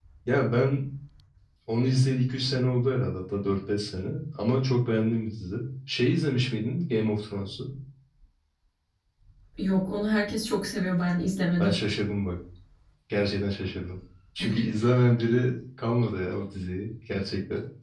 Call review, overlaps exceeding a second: none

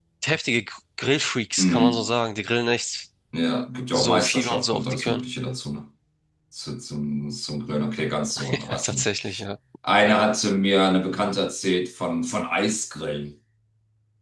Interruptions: present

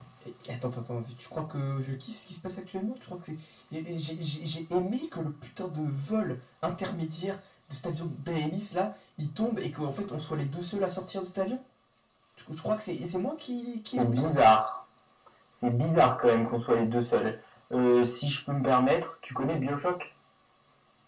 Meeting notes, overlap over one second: none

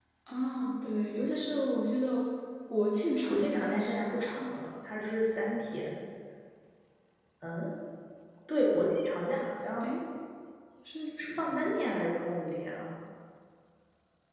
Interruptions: present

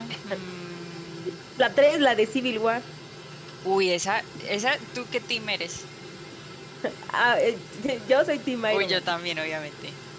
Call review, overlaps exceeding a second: none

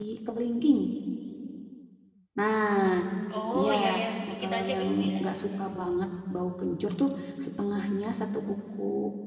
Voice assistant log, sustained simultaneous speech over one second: present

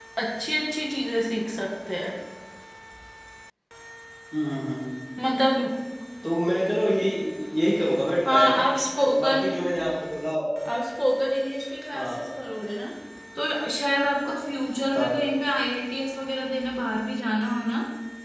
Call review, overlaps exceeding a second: none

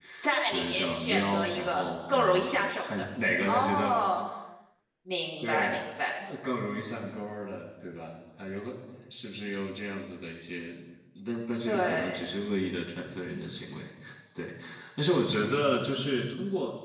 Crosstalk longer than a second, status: present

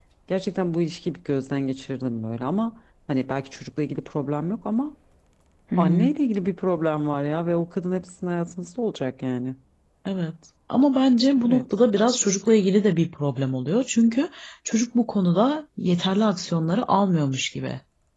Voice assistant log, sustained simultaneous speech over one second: none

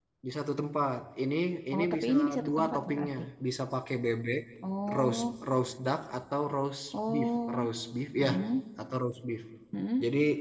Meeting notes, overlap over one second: present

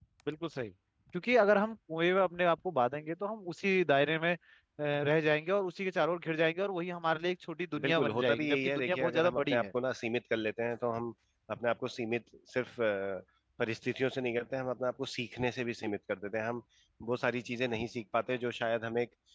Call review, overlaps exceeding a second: present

